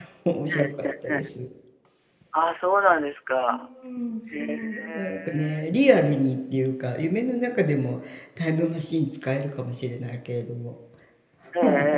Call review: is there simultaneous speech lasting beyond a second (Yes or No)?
Yes